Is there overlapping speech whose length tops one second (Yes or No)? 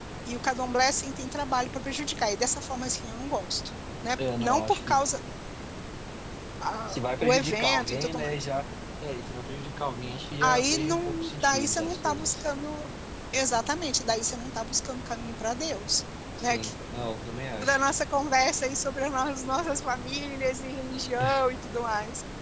Yes